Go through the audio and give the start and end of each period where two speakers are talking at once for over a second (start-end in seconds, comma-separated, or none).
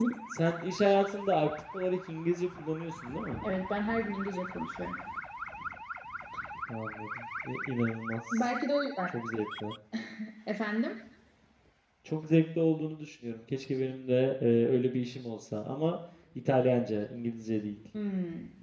none